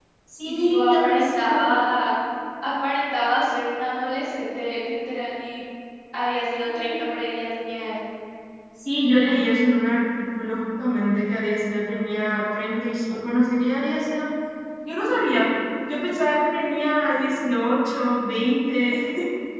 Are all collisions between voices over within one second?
No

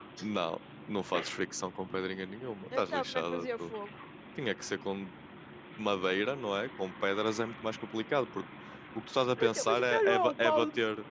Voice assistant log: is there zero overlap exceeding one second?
No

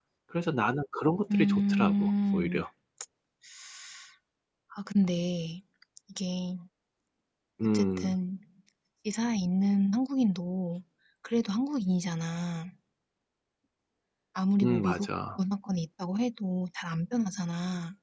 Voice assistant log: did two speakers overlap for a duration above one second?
Yes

